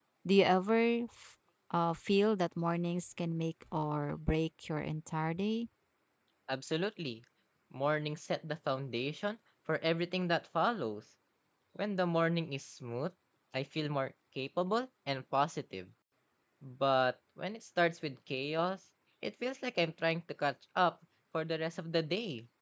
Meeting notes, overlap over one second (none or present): none